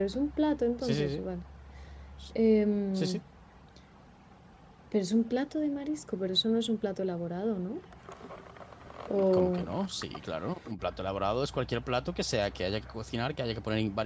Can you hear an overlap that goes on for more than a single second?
No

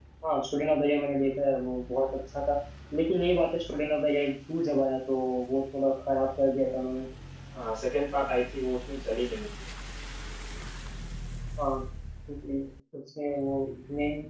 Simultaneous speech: No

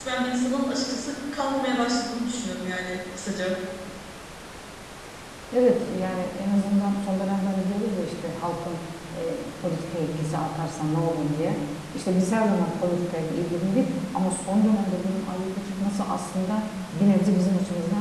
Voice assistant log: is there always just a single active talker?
Yes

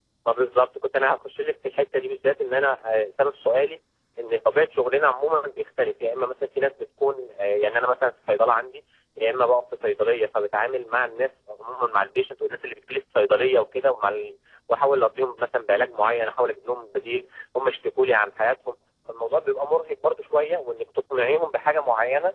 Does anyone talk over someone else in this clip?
No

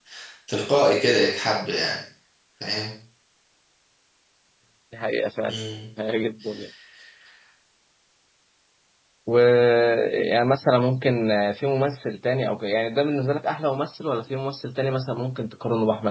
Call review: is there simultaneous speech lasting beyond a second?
No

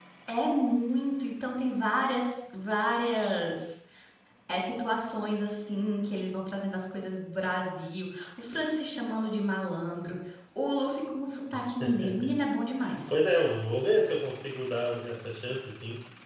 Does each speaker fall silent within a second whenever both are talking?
Yes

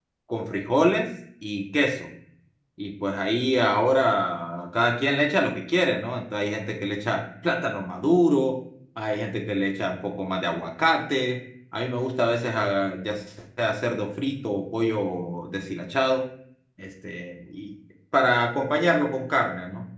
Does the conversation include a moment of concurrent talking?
No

